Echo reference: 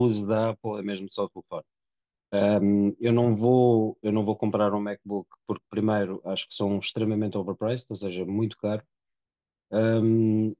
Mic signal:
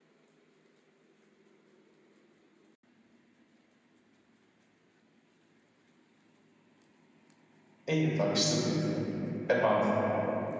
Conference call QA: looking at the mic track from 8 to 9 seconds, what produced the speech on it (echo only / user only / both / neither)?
user only